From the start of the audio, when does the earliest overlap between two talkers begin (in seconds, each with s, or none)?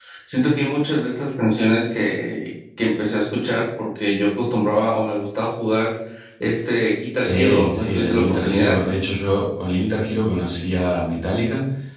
7.2 s